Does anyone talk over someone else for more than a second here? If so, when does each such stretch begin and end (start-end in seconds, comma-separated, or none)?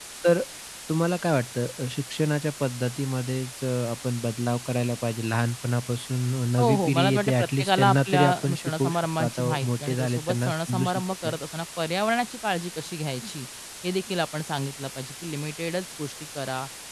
6.6-11.4